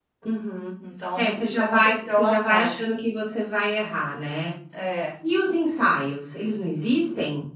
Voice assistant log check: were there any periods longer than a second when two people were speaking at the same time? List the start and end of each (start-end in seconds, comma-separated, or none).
1.2-2.9